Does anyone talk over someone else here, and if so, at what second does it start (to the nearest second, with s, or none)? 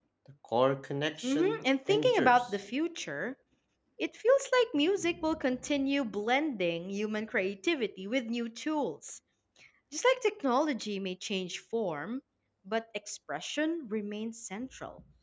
1 s